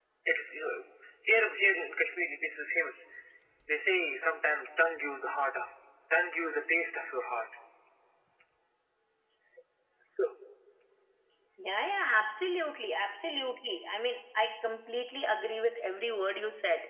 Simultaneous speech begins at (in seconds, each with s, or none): none